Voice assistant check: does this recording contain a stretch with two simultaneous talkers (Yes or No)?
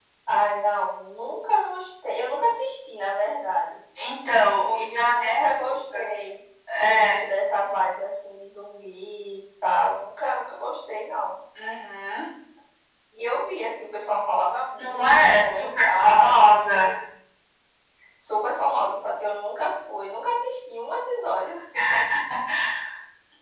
Yes